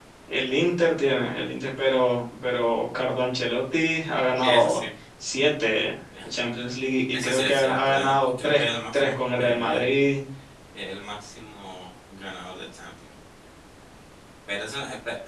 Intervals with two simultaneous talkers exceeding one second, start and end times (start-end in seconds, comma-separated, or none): 7.1-9.9